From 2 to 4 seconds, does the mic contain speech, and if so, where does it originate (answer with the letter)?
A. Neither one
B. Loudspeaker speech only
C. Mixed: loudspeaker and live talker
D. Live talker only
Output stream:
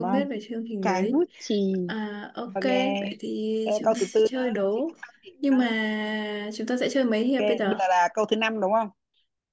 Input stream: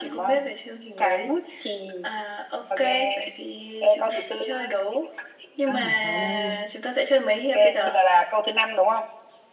B